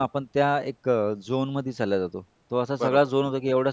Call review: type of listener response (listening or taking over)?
listening